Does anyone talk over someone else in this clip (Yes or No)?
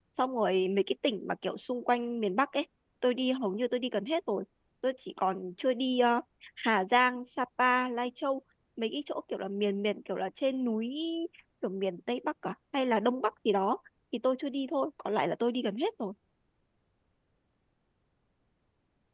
No